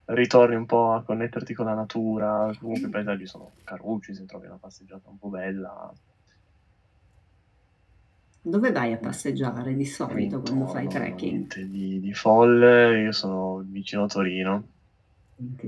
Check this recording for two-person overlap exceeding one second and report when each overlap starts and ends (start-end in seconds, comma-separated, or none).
10.1-11.4